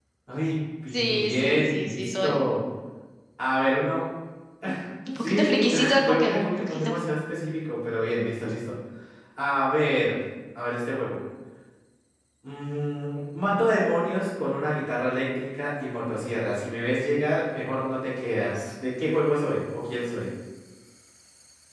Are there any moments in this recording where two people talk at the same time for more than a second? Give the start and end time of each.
0.9-2.4, 5.2-6.9

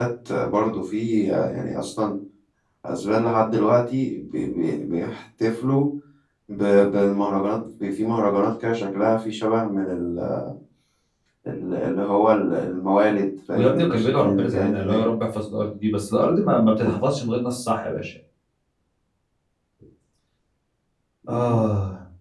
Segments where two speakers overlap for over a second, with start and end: 13.5-15.0

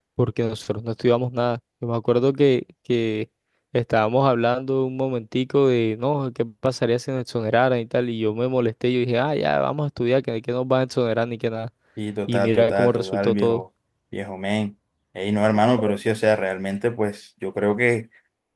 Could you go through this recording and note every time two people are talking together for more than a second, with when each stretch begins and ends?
12.3-13.6

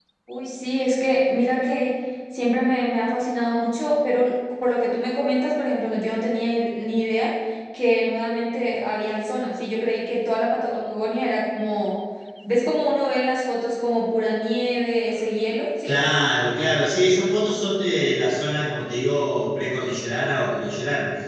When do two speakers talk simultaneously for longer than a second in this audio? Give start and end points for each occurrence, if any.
none

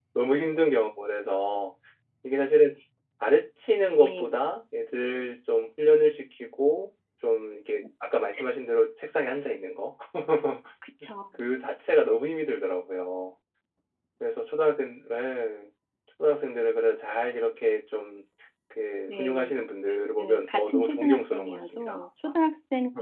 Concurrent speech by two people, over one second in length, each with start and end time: 20.2-22.0

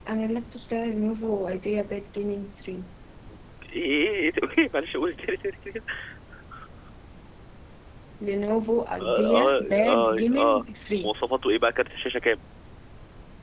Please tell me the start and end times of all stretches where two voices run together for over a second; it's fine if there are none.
9.0-10.6

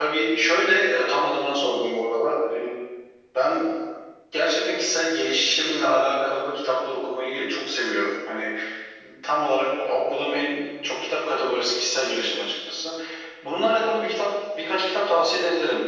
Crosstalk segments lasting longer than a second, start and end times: none

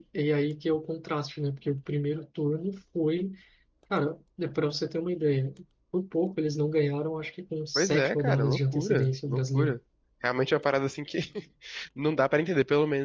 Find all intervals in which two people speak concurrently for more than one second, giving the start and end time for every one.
7.8-9.8

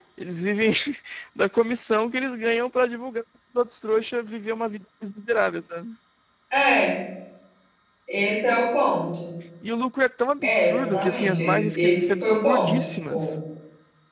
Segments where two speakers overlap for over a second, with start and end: 10.4-13.3

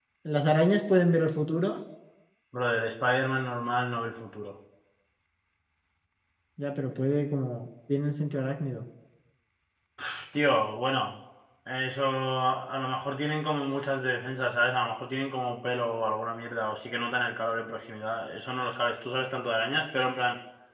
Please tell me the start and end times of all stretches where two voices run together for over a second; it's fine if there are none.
none

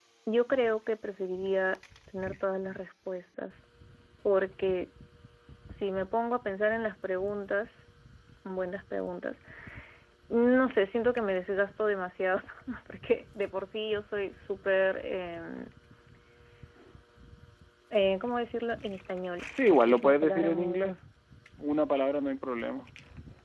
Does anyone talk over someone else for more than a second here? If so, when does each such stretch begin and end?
19.7-21.0

